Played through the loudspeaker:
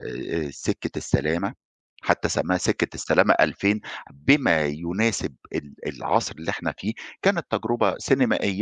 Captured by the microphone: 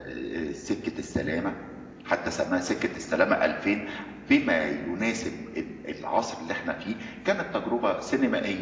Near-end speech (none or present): none